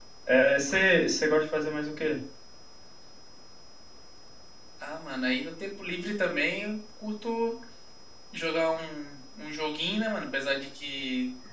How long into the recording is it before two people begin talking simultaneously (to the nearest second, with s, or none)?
none